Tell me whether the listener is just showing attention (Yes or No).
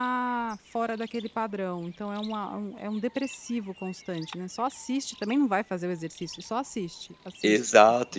No